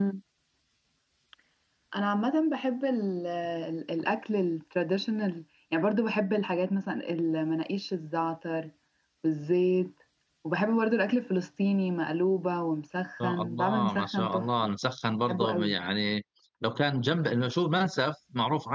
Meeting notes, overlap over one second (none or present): present